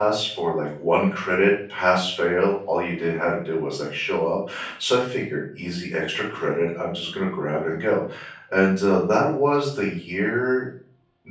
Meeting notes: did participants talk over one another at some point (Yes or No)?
No